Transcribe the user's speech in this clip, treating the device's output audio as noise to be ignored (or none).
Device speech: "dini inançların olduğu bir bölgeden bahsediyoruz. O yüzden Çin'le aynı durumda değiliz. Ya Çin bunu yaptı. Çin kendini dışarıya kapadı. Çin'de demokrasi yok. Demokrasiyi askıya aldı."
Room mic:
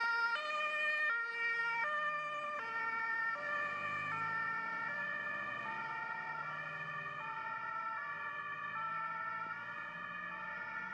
none